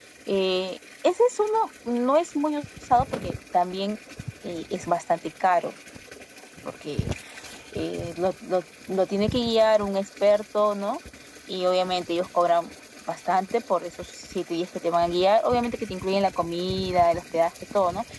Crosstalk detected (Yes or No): No